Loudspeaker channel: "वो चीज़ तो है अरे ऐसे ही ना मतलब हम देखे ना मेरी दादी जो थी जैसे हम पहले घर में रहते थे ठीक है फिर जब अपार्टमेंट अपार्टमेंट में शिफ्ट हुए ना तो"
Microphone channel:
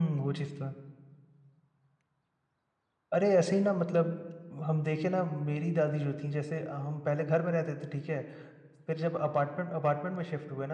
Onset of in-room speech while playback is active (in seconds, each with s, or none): none